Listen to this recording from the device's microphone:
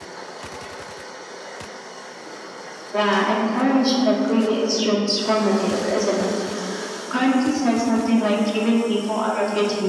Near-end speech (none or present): none